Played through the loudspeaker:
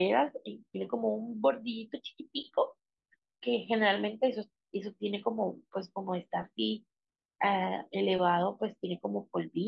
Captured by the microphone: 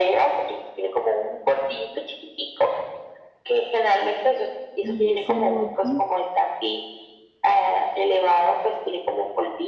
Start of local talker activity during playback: 5 s

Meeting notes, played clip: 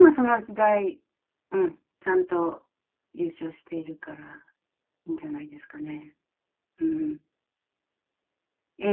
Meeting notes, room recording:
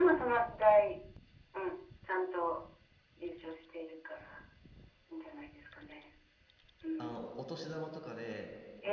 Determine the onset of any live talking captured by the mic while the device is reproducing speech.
7 s

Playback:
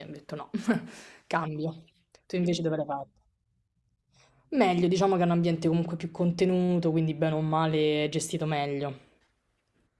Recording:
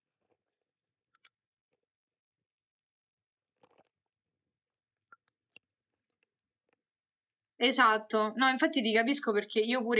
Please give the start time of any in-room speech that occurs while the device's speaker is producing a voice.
8 s

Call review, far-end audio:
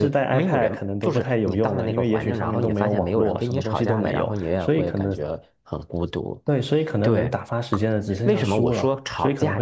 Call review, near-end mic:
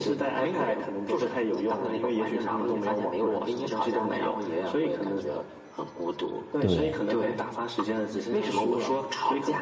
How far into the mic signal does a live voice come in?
7 s

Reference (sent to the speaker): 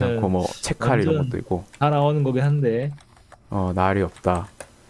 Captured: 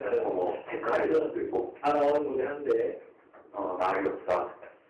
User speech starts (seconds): none

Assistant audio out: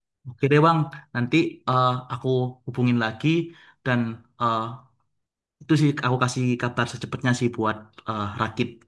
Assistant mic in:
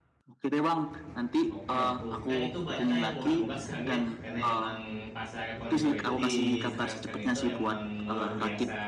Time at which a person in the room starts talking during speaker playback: 2 s

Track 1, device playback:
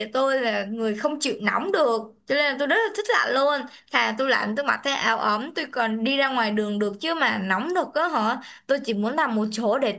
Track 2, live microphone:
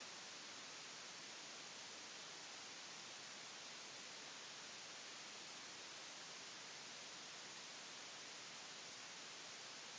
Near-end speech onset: none

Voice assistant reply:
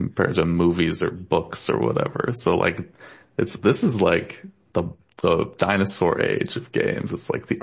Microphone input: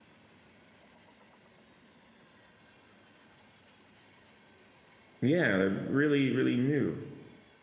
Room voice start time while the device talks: 5 s

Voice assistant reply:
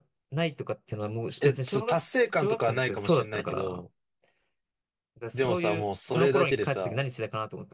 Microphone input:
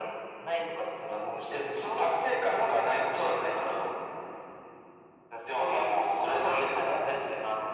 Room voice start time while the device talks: none

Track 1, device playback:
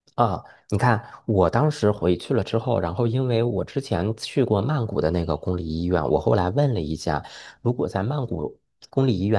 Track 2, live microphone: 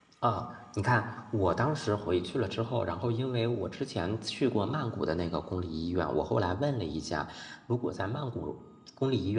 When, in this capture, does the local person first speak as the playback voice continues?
none

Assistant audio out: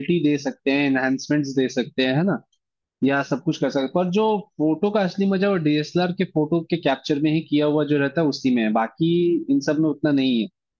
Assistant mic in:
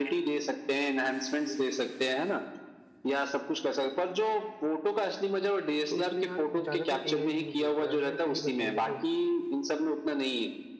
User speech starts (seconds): 6 s

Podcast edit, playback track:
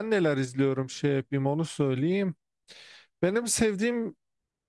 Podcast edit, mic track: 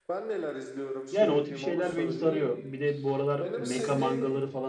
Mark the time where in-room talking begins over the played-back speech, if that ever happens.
1 s

